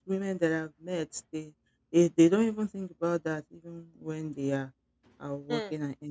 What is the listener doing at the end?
taking over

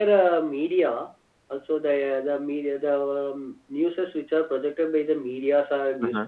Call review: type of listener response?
listening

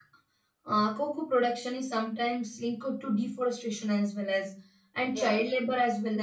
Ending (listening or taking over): listening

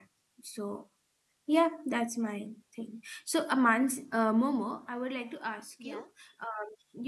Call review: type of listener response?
listening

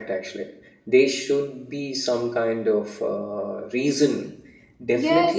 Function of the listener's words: taking over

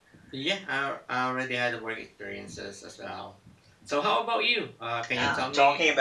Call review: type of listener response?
taking over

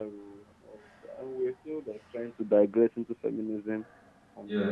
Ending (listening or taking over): listening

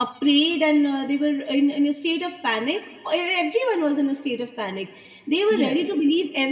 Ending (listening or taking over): listening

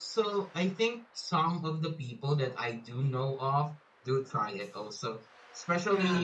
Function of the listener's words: listening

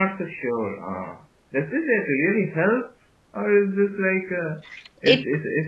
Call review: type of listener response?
listening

